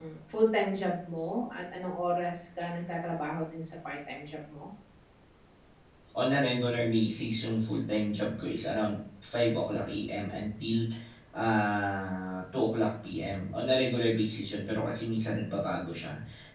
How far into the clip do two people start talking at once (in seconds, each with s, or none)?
none